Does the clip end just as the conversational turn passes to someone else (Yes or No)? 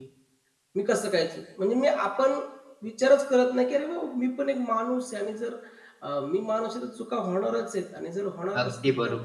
Yes